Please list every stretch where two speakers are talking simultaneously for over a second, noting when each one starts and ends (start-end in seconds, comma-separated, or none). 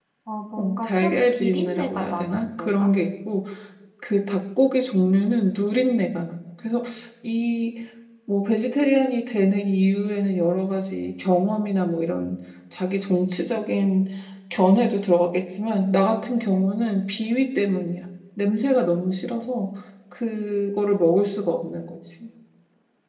0.6-2.9